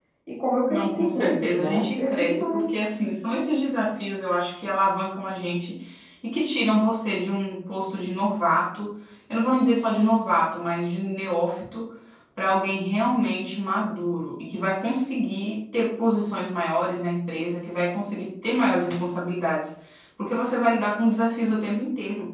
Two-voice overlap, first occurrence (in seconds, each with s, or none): 0.7 s